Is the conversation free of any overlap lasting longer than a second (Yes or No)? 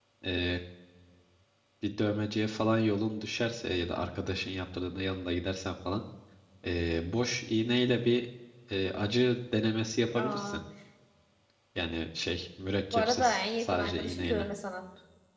No